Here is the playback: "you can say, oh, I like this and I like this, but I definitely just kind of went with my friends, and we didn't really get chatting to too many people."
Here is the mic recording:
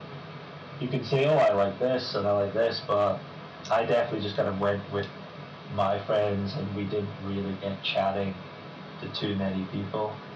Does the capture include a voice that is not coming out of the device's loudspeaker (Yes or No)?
No